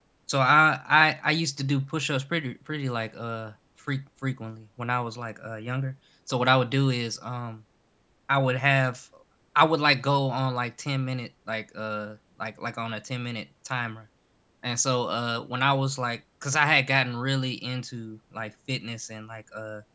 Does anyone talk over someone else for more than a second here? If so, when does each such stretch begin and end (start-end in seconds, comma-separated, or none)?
none